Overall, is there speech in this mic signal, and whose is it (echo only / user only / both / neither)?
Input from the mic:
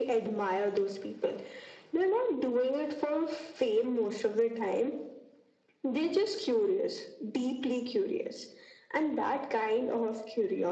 echo only